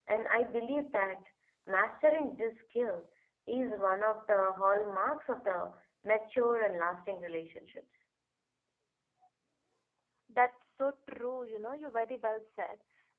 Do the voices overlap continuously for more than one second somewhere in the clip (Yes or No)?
No